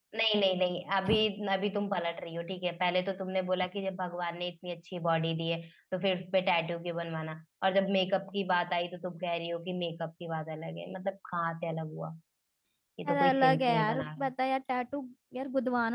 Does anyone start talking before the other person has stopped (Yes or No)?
Yes